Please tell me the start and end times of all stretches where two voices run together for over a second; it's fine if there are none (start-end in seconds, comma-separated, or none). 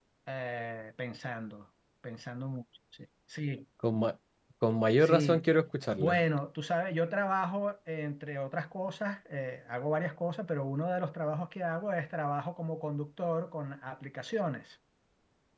none